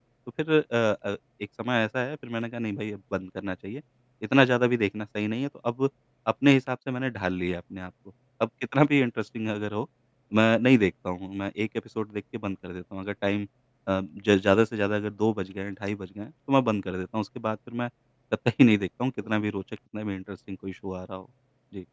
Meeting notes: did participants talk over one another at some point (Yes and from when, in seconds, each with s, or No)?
No